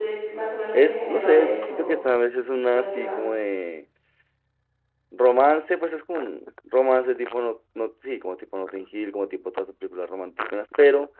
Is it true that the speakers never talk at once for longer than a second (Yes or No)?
No